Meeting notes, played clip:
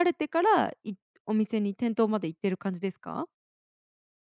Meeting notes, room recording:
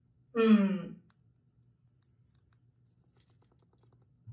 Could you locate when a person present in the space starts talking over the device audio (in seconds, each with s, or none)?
0.3 s